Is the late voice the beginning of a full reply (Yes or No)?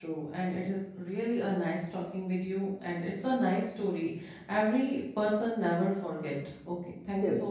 Yes